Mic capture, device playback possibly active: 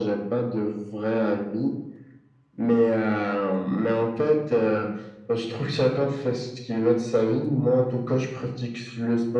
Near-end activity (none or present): none